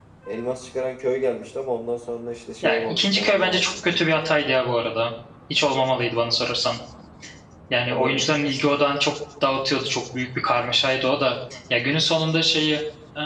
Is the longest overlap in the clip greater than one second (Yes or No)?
Yes